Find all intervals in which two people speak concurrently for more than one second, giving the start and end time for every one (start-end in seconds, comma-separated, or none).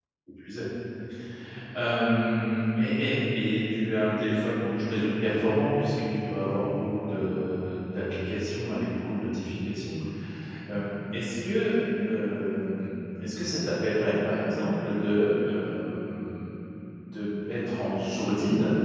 none